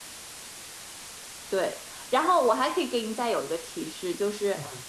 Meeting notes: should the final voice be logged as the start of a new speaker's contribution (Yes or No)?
No